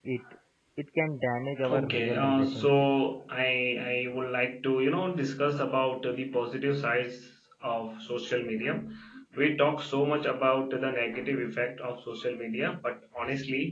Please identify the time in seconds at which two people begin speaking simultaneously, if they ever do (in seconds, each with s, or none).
1.7 s